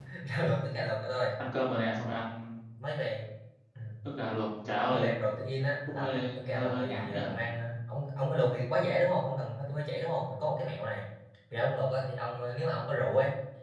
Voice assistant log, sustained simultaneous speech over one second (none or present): present